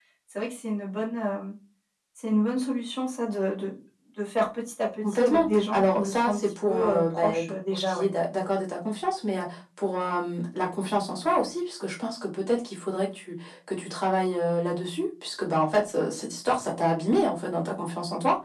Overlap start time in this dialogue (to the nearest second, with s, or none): 5 s